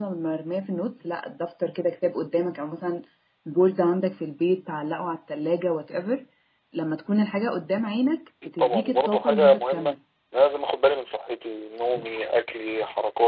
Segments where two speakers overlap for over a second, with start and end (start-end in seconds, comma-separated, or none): 8.6-9.9